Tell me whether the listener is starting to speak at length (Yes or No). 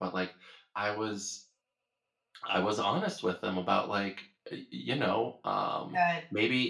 No